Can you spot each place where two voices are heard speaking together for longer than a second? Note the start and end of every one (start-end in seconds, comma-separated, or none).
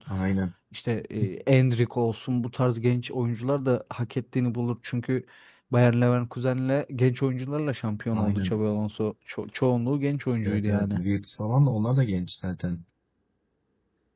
none